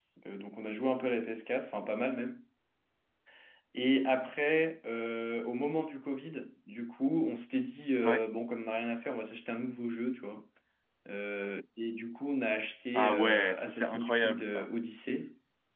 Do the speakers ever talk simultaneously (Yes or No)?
Yes